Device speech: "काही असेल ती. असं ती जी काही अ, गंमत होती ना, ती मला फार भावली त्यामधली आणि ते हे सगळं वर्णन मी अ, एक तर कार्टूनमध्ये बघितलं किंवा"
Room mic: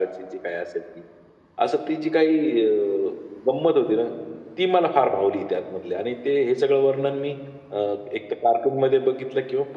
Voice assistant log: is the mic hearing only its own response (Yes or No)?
Yes